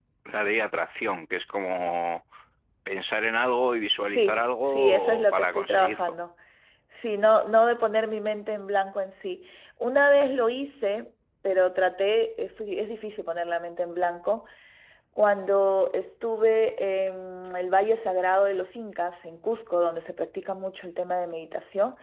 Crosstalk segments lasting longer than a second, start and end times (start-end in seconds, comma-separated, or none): 4.1-6.2